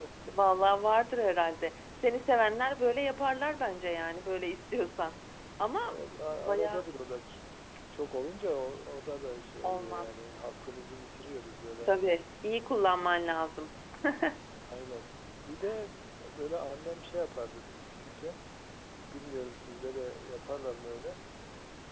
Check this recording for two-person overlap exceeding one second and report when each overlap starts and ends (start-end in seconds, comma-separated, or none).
none